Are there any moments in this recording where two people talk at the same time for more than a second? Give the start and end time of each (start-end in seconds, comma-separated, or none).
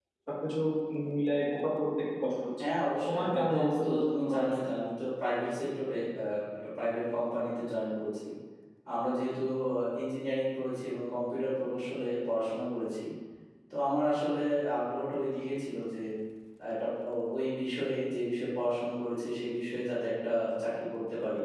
3.1-4.4